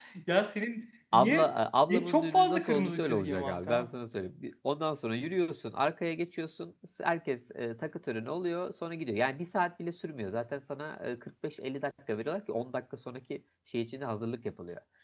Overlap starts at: 1.1 s

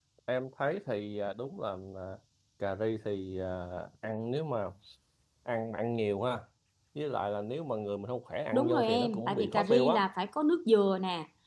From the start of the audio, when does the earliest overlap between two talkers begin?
8.5 s

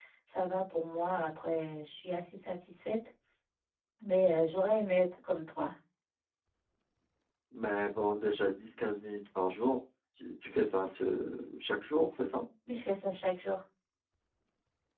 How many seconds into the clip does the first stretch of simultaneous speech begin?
none

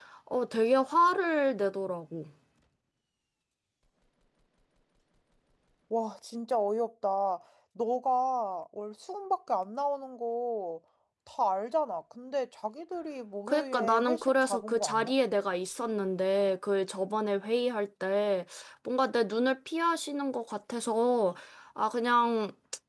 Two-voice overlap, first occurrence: 13.5 s

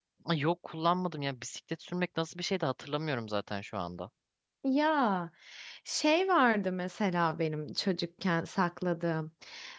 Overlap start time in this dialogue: none

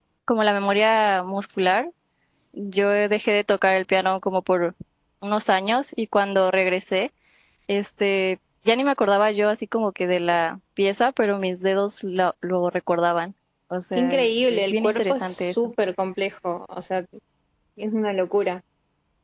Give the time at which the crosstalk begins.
14.0 s

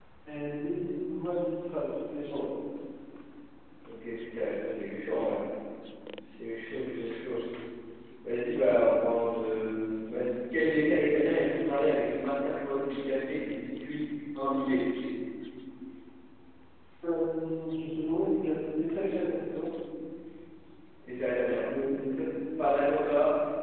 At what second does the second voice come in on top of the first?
none

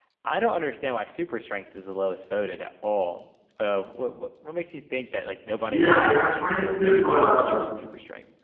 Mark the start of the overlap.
5.7 s

